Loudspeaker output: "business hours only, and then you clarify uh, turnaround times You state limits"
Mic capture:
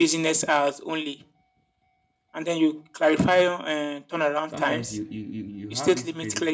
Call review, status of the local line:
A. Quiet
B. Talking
B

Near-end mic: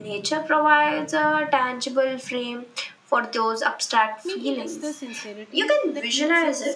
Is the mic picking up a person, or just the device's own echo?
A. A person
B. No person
A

